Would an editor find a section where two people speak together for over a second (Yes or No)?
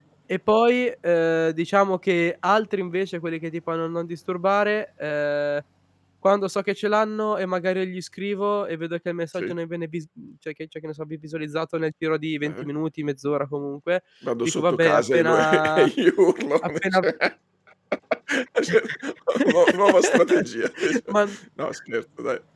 Yes